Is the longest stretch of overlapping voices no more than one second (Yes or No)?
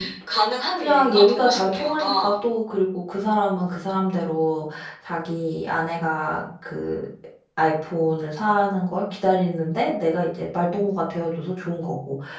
No